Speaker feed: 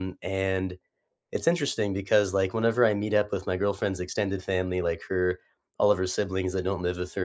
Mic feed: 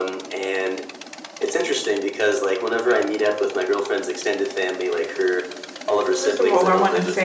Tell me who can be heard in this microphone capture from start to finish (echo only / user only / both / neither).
both